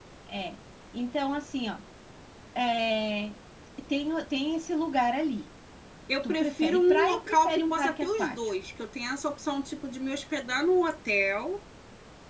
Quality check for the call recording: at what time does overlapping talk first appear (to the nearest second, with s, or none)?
6 s